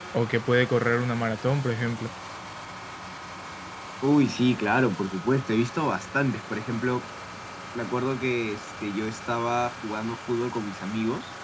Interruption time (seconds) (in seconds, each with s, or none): none